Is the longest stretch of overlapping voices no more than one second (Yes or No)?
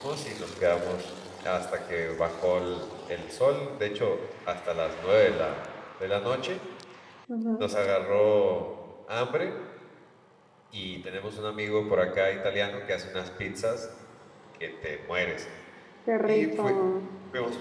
Yes